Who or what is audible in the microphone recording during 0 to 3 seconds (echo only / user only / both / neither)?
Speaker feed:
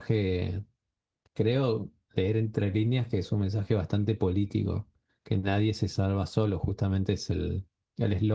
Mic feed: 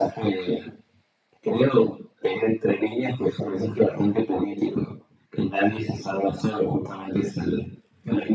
echo only